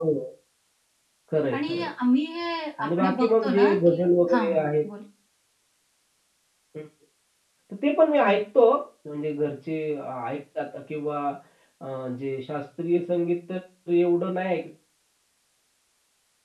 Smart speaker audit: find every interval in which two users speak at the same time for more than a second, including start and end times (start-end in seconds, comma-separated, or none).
2.8-4.7